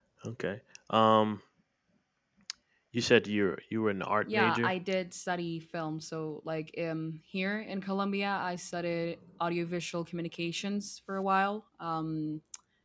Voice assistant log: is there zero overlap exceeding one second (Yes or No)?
Yes